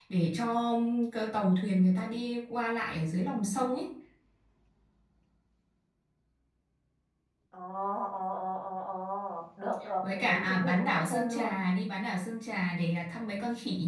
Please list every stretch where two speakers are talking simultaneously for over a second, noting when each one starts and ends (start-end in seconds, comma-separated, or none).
10.0-11.5